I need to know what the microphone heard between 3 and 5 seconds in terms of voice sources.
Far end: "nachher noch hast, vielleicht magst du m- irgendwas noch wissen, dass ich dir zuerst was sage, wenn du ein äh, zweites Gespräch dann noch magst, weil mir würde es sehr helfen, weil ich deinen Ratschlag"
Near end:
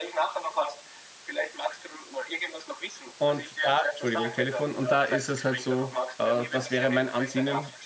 both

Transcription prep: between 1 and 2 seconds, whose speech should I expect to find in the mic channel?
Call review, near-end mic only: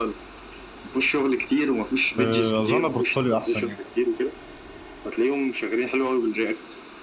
echo only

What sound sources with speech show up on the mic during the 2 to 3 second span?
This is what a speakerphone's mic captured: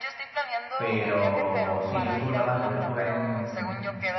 both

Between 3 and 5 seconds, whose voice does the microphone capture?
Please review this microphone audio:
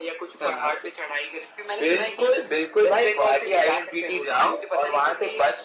echo only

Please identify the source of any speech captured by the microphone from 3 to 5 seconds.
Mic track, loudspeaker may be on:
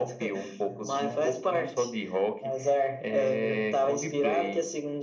echo only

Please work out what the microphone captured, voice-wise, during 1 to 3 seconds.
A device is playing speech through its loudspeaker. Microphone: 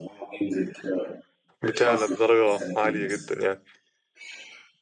both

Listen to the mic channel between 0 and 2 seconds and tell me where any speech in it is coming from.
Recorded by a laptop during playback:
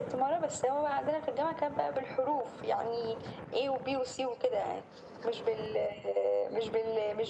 echo only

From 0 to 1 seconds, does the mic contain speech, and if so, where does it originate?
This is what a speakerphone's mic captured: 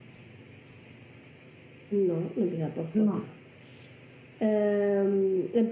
neither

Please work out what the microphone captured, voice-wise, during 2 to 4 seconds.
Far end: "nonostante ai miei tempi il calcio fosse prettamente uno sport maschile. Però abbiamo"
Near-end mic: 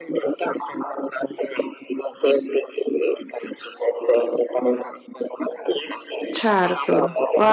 echo only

